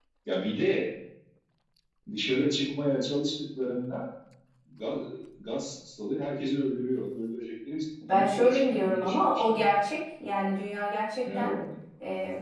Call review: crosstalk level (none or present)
present